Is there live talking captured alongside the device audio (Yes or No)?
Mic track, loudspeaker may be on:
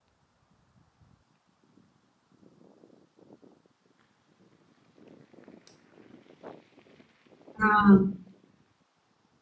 Yes